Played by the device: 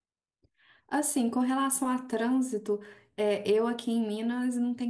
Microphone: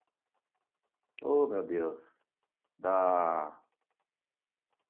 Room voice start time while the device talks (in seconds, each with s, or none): 1.2 s